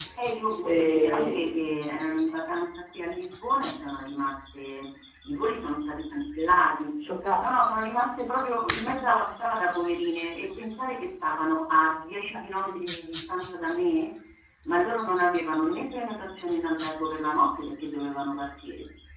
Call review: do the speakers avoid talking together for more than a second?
No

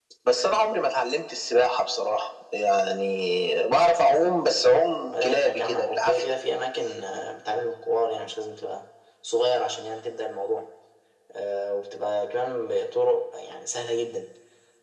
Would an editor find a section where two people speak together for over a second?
Yes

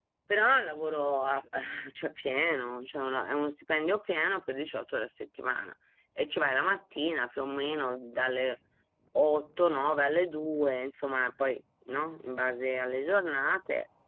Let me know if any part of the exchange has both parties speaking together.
No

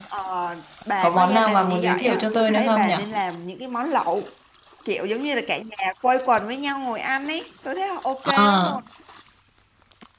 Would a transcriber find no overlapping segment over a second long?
No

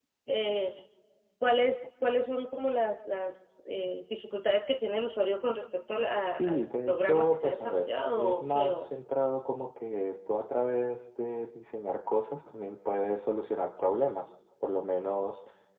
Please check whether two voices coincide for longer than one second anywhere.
Yes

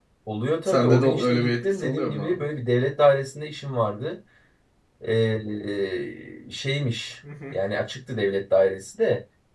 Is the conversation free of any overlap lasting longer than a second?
No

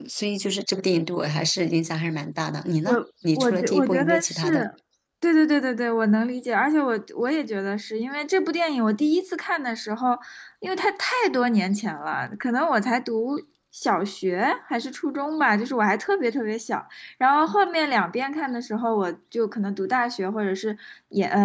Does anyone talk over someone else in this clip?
Yes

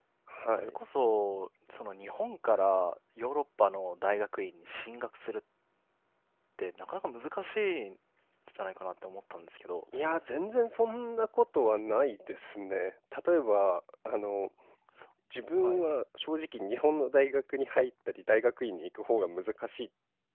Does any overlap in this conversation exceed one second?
No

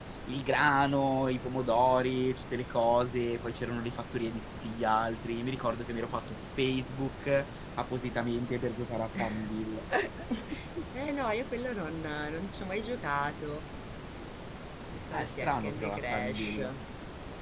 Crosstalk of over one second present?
Yes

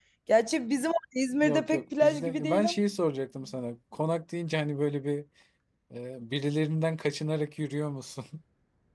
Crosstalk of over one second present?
Yes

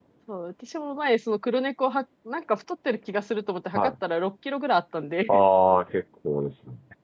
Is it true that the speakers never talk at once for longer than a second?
Yes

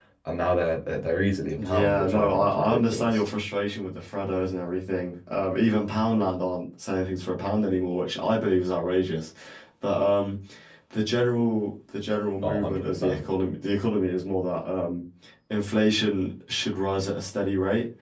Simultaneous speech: Yes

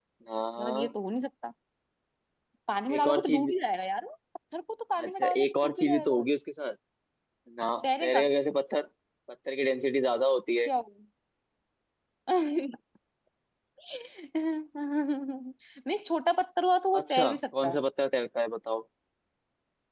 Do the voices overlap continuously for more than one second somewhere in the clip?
Yes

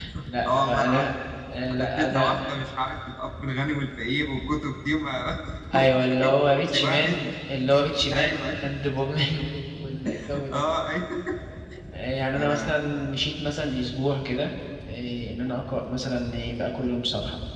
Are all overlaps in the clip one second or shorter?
No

